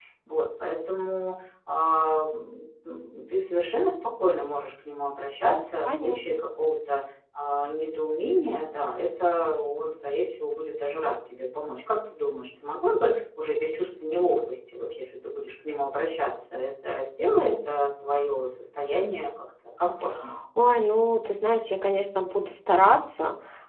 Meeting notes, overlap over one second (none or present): none